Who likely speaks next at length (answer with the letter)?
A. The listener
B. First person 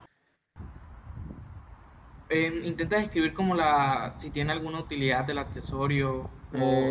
A